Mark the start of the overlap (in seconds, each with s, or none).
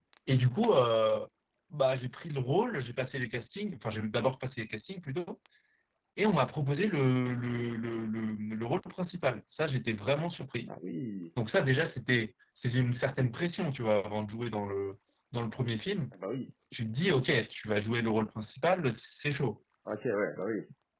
none